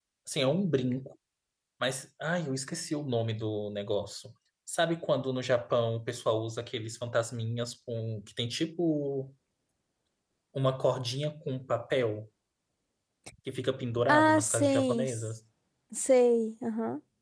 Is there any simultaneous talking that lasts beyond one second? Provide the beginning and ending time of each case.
14.1-15.3

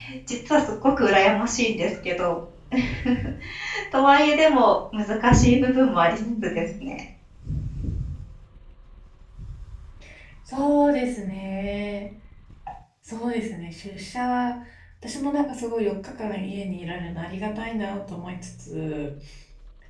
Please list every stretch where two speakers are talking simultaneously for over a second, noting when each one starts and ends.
5.3-6.6

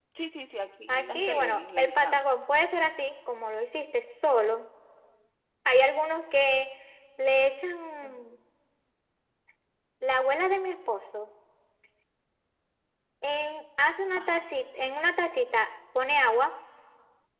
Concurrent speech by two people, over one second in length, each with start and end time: 0.9-2.3

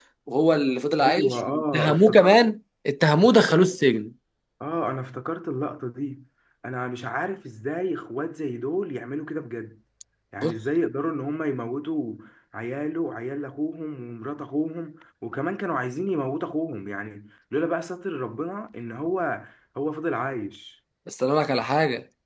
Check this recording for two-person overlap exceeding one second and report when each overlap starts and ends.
1.1-2.5

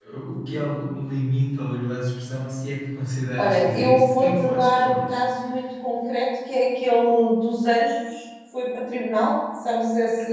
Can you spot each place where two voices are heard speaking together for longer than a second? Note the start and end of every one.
3.4-5.2

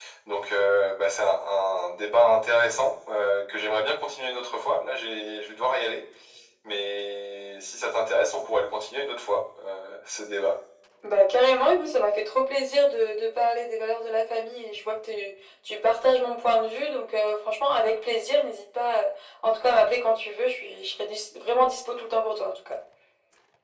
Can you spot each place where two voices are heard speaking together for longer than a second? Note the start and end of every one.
none

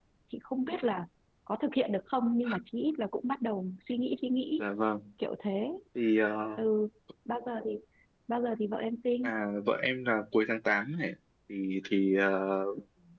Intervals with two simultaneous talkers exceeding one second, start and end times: none

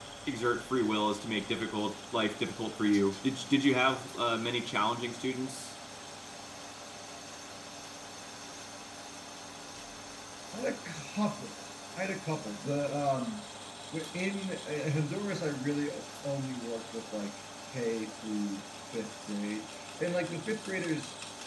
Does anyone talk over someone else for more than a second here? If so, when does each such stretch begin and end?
none

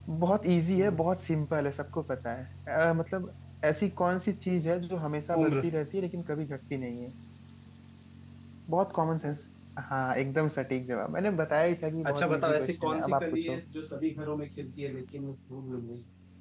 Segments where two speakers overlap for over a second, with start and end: 12.1-13.6

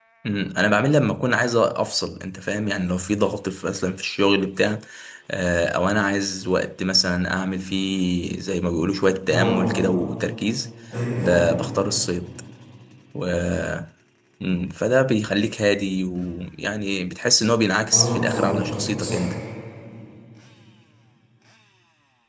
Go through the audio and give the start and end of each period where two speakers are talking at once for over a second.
17.9-19.2

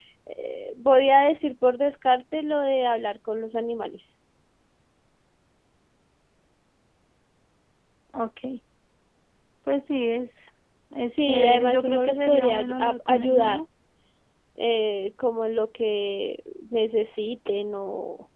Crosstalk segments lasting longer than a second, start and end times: 11.2-13.6

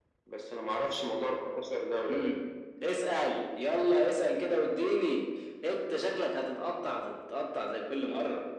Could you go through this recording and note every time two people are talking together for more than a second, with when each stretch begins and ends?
none

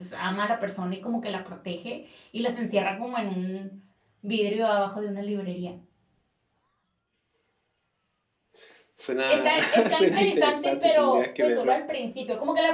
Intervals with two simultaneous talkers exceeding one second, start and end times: 9.3-11.8

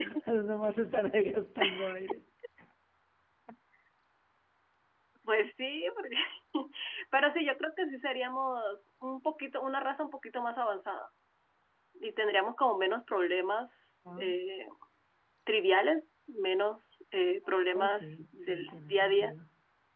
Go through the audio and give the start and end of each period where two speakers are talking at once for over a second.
17.8-19.4

